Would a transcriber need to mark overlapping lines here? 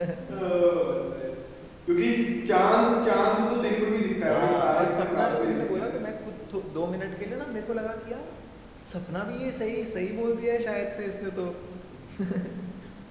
Yes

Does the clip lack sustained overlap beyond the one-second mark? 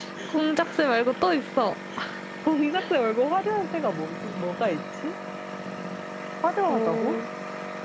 Yes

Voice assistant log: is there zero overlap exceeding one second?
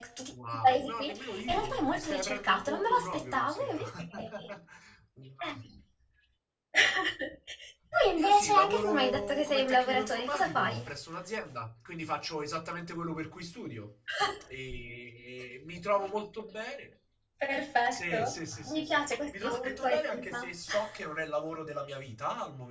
No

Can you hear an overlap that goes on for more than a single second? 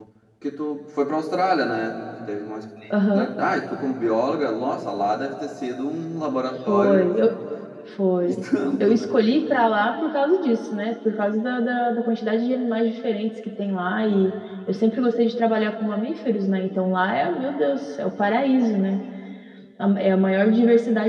No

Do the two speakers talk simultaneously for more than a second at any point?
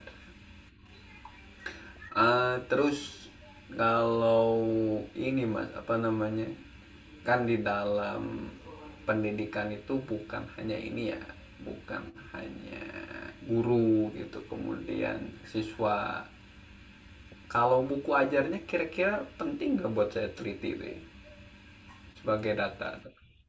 No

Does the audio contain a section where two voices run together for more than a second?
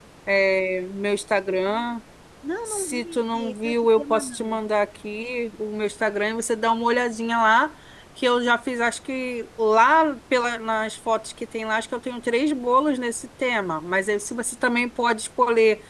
Yes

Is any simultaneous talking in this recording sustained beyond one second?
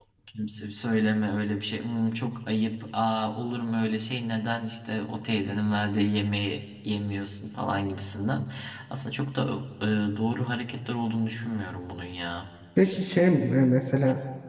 No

